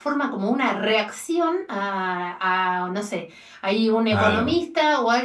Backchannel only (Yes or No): Yes